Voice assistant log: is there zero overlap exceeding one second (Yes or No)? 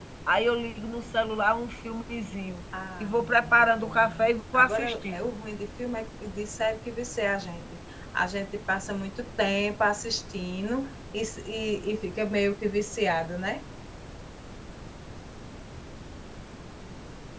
No